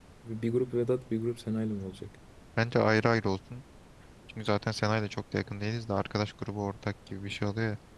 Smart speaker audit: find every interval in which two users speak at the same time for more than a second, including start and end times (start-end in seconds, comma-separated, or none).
none